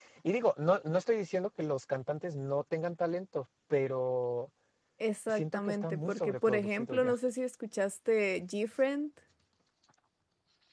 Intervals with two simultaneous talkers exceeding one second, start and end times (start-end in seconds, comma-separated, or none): 5.3-7.2